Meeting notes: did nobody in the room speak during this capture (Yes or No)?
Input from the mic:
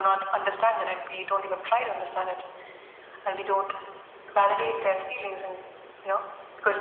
Yes